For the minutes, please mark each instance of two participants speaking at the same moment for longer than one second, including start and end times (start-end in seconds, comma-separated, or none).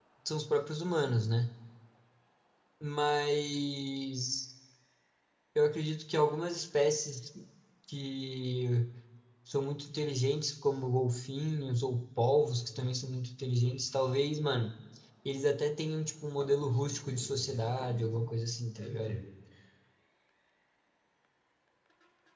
16.4-18.3